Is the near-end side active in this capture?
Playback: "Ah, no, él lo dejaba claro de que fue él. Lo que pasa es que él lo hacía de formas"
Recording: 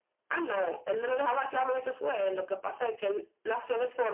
No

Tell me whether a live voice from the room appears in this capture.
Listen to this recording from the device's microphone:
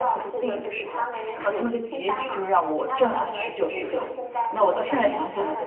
Yes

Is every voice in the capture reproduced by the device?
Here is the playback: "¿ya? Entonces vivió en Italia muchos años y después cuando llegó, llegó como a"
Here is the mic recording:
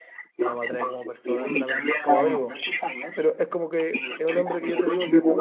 No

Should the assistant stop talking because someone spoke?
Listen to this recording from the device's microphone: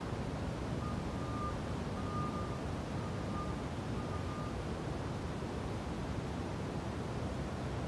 No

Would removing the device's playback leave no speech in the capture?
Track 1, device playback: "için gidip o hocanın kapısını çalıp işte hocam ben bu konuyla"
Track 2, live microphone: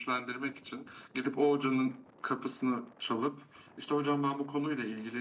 Yes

